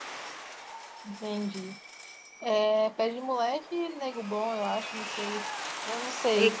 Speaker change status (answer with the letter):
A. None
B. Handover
B